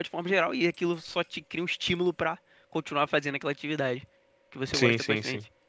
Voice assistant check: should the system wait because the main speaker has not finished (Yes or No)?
No